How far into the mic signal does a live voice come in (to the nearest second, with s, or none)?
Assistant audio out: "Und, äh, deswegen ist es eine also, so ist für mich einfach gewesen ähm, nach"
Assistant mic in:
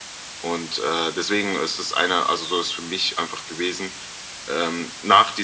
none